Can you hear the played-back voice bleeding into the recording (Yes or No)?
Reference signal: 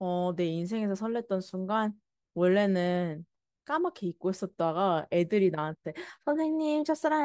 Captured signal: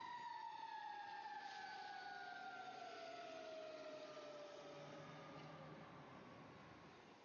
No